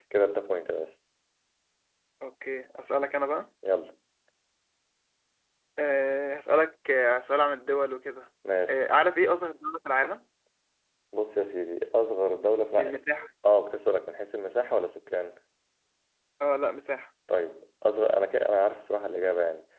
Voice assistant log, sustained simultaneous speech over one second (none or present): none